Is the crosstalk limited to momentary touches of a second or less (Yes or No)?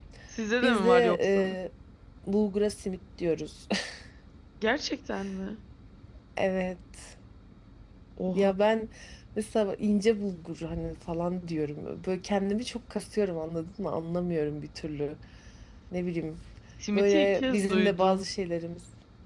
No